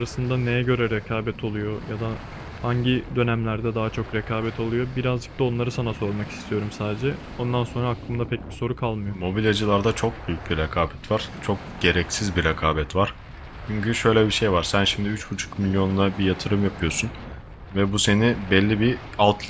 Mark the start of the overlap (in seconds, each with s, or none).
none